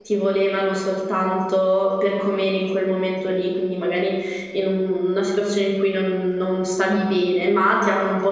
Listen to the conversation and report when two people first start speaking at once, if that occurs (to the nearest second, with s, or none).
none